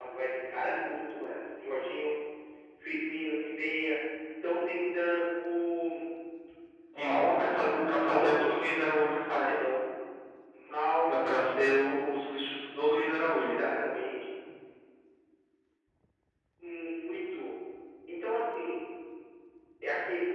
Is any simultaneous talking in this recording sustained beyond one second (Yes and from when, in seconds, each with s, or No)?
Yes, from 7.1 s